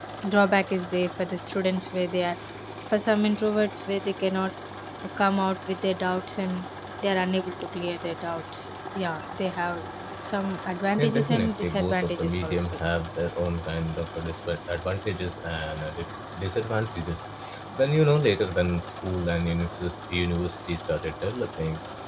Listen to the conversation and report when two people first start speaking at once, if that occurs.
11.0 s

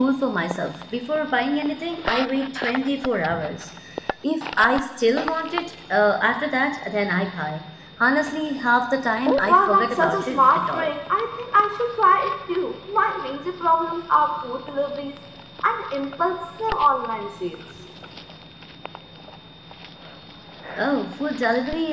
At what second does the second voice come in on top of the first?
9.4 s

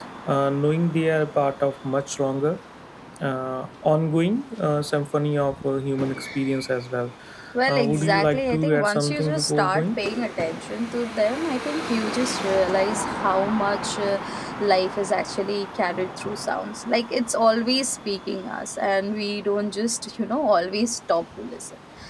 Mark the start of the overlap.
7.7 s

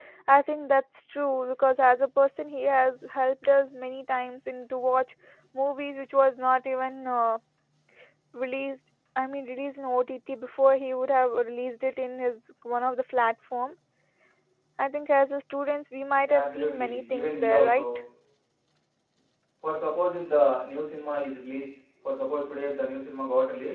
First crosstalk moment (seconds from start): 16.2 s

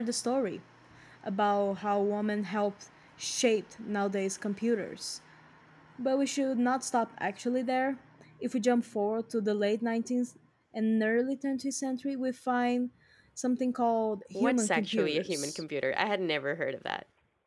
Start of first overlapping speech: 14.3 s

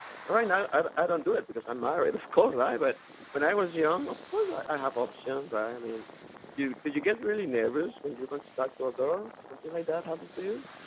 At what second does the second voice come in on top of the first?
none

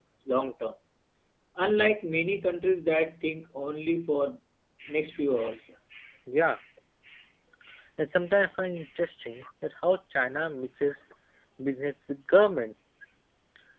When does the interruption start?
none

